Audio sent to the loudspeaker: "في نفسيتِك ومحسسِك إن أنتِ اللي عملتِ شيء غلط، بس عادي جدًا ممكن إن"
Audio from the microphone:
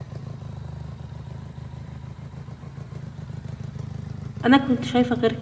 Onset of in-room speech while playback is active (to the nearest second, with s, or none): 4 s